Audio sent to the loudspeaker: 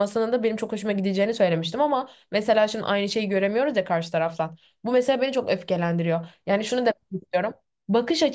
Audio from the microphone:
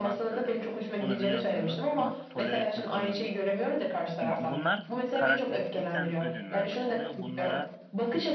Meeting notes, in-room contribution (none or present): present